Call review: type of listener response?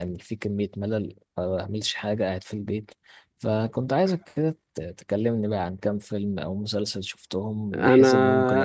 taking over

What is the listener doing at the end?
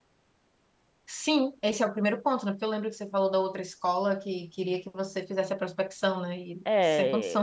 taking over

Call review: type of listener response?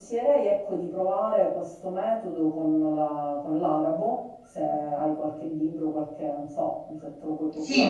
taking over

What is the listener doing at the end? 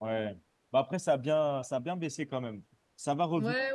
taking over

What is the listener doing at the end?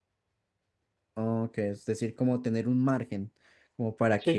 taking over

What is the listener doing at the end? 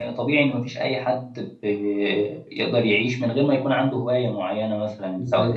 listening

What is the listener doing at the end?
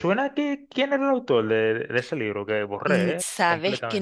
taking over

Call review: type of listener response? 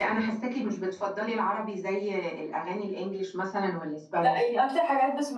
taking over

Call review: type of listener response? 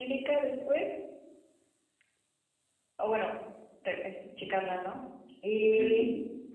taking over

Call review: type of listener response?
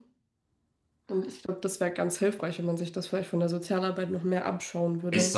taking over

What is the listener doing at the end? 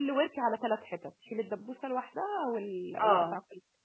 taking over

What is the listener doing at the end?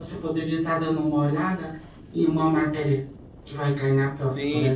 taking over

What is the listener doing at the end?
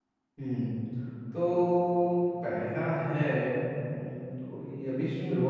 listening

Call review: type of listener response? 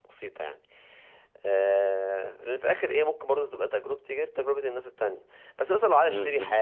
listening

